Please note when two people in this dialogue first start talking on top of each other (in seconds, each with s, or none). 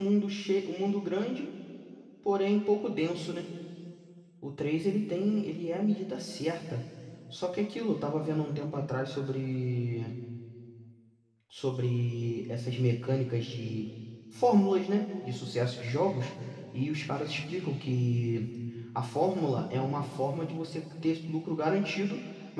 none